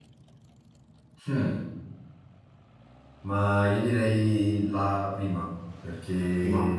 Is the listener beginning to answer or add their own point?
No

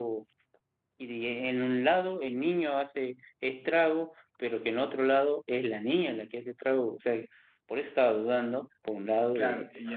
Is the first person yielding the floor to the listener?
Yes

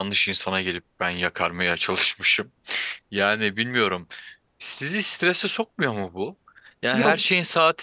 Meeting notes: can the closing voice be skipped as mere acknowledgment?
Yes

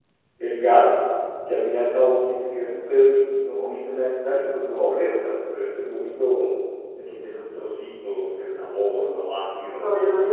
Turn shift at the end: Yes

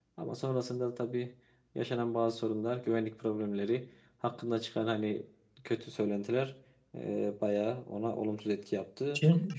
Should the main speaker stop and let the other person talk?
Yes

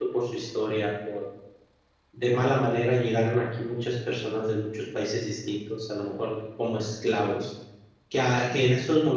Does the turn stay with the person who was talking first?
Yes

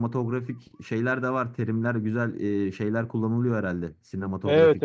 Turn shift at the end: Yes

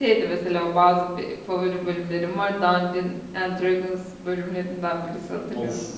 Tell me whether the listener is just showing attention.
No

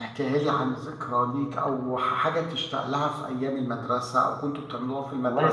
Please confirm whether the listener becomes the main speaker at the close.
Yes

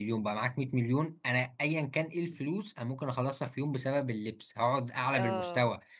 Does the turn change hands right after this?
No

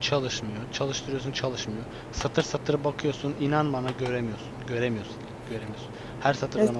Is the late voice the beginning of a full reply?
Yes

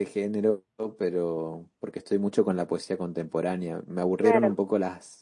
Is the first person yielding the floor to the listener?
No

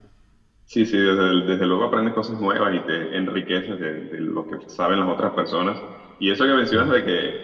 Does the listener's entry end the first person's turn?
No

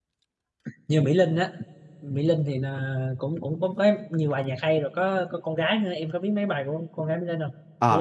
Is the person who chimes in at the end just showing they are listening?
No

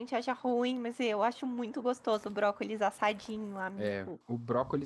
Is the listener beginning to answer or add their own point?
Yes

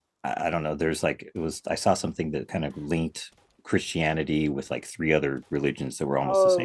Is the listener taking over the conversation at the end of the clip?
Yes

